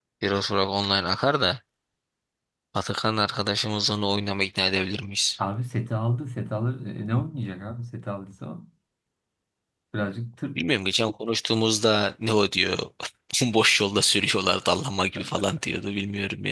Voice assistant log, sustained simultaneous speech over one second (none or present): none